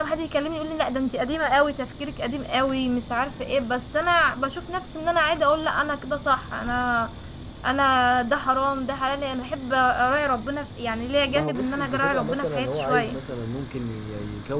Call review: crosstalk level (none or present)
present